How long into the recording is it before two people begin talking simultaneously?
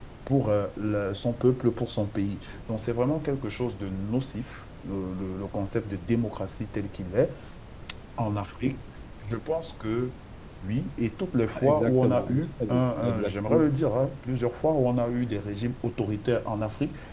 11.6 s

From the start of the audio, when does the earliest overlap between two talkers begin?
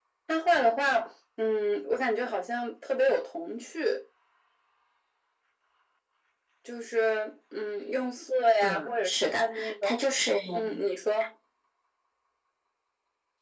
8.6 s

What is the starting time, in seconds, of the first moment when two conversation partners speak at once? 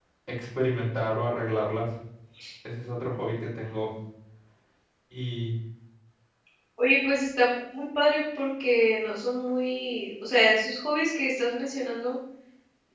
none

